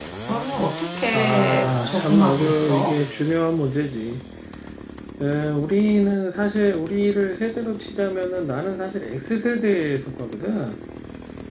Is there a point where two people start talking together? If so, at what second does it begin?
1 s

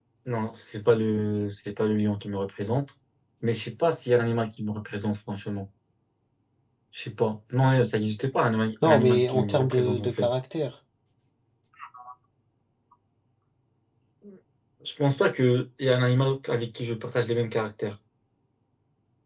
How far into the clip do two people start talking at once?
9 s

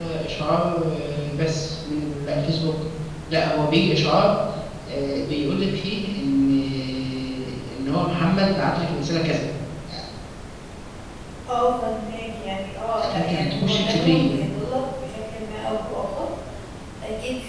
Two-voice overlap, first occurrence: 13 s

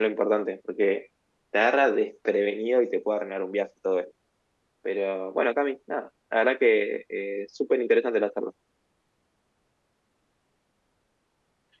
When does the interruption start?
none

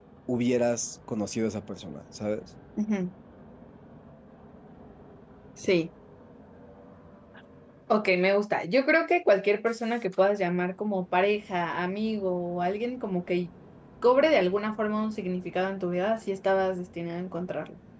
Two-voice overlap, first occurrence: none

